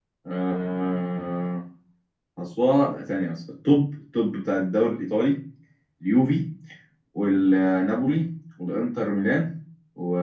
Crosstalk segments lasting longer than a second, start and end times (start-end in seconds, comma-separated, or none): none